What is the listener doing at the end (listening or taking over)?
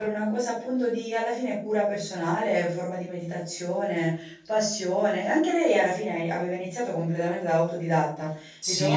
taking over